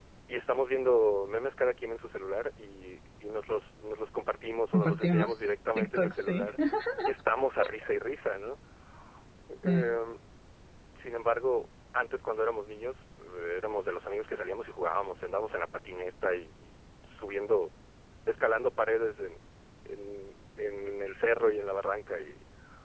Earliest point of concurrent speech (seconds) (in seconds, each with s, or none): 4.7 s